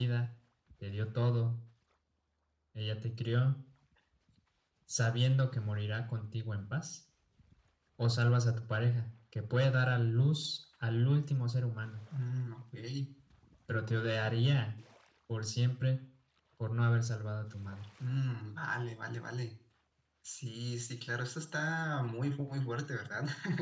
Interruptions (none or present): none